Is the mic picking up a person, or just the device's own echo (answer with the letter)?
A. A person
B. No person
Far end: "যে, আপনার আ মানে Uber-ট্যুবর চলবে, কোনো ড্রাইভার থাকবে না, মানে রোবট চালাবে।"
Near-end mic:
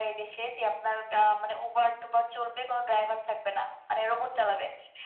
B